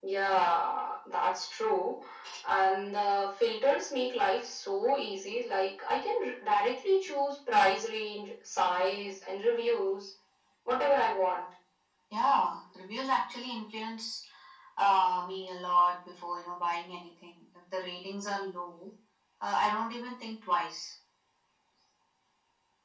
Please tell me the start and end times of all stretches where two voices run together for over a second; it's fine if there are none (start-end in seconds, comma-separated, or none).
none